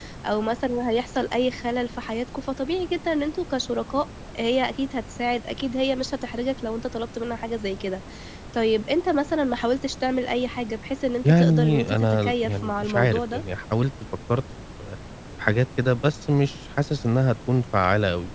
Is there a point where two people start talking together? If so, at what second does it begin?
11.2 s

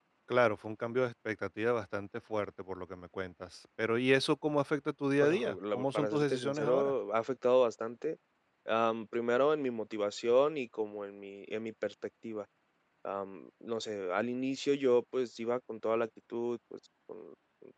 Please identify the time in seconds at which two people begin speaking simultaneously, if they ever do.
5.2 s

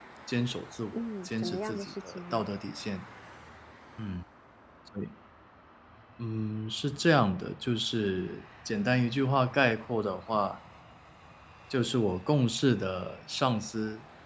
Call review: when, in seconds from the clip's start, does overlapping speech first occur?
0.9 s

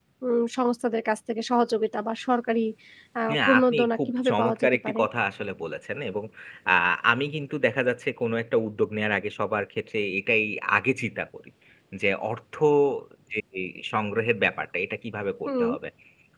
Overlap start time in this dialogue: 3.4 s

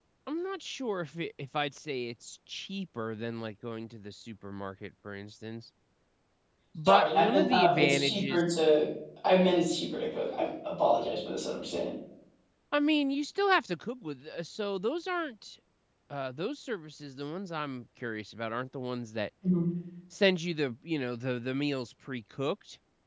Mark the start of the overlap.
6.8 s

